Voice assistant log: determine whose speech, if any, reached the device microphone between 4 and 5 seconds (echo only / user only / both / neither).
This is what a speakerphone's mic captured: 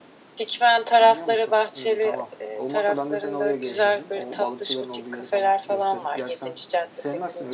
both